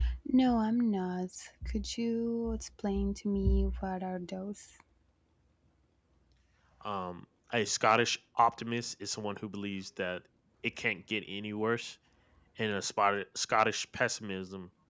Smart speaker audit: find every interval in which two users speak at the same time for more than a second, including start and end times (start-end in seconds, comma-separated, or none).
none